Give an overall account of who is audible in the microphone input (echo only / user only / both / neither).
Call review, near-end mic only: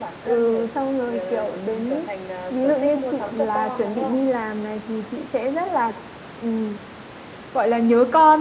echo only